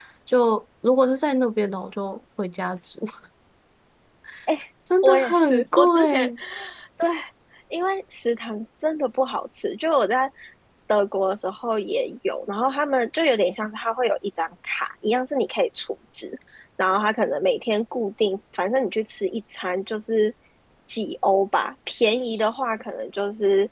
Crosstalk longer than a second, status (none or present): present